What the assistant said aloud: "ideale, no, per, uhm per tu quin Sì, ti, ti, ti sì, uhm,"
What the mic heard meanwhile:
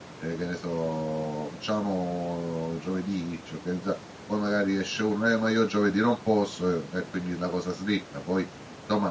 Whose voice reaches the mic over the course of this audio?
user only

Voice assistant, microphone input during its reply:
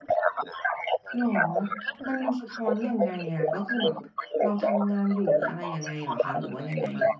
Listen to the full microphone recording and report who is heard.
both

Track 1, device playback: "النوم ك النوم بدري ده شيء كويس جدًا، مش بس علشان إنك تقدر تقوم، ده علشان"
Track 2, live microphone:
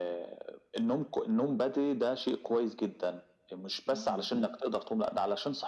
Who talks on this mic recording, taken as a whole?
both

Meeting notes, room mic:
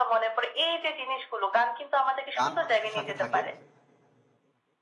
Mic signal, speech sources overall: both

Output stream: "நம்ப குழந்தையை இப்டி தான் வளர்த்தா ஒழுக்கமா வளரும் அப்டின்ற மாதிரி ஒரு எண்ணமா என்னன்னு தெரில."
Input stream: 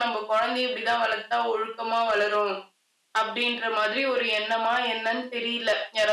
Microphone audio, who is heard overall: echo only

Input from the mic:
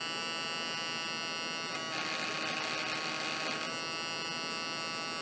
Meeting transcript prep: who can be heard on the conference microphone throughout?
neither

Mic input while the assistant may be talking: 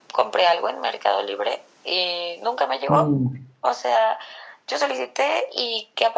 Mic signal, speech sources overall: both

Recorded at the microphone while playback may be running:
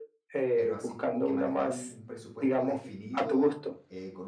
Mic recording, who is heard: both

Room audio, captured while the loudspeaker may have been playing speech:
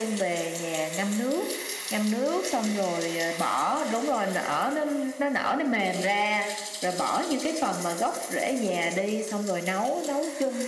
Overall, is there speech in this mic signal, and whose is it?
echo only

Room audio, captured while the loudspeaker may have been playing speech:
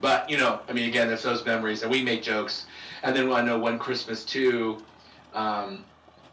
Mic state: echo only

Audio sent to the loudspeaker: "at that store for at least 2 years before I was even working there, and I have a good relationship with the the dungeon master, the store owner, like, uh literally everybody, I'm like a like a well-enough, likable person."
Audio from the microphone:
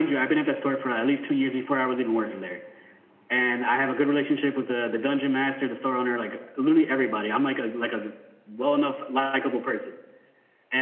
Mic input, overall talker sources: echo only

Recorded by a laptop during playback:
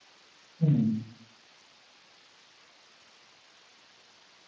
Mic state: user only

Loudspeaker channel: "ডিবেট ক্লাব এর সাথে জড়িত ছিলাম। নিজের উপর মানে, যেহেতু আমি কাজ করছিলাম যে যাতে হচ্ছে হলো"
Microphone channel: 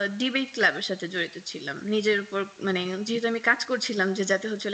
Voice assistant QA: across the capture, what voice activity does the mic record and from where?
echo only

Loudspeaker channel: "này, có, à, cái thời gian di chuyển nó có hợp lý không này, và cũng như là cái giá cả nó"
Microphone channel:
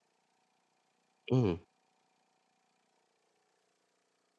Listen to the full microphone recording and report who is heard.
user only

